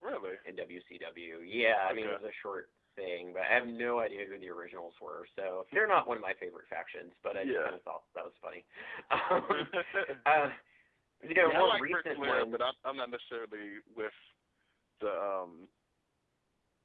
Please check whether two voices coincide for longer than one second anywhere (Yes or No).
Yes